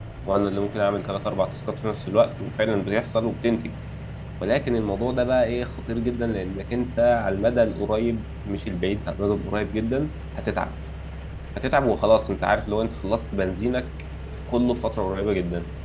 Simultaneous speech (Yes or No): No